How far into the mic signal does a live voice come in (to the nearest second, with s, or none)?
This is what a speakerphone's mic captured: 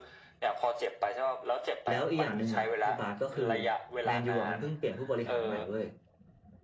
2 s